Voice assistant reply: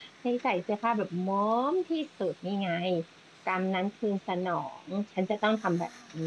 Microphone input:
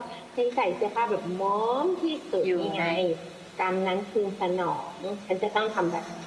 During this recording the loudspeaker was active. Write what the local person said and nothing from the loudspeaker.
อยู่ใน

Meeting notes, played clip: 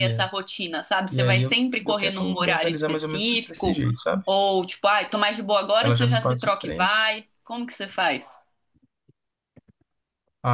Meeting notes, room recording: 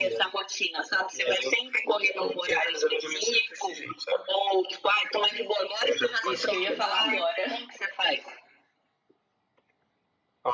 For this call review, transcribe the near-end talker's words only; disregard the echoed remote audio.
isso que eu ia falar agora.

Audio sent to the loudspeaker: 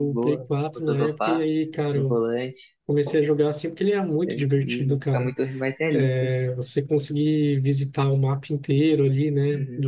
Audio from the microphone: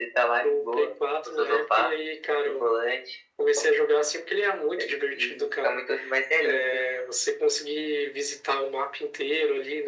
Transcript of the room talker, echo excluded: none

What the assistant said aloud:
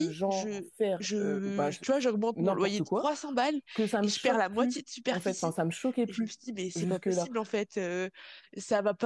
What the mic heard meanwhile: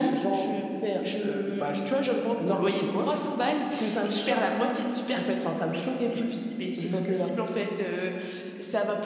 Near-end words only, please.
none

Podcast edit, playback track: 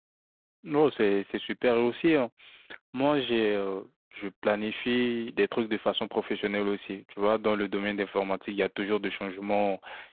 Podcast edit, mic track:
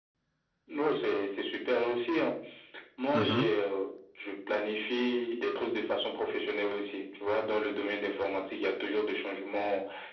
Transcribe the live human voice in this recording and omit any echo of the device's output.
Mhm.

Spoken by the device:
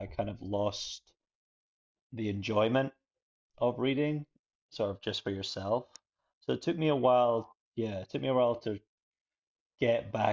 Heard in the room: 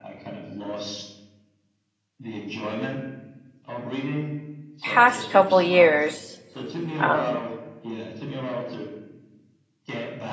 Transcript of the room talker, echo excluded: past couple years, um,

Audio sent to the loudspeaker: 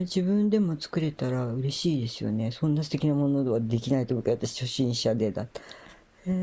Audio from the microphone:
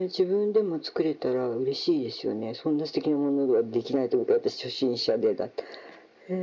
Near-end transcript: none

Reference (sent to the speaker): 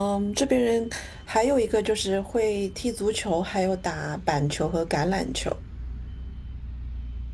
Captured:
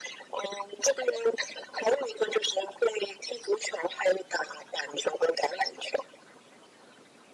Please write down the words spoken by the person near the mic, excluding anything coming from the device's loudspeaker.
none

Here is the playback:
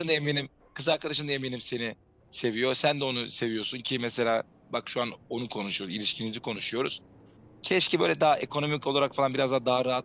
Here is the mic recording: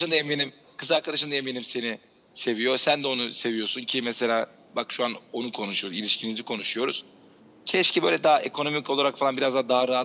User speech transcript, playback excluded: none

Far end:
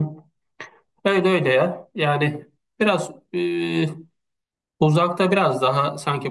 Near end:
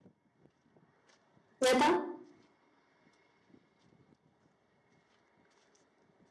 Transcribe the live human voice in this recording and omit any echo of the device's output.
Neden?

